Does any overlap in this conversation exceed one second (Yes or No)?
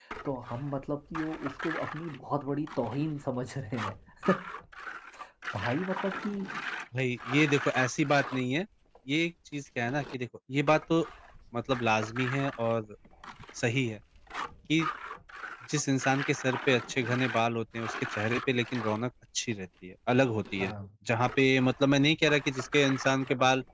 No